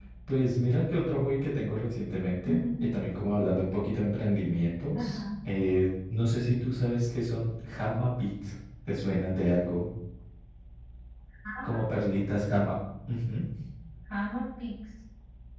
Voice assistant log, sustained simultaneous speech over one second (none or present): none